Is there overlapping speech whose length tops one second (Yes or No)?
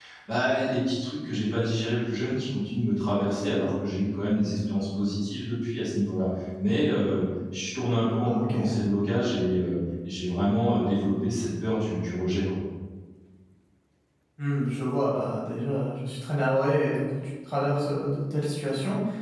No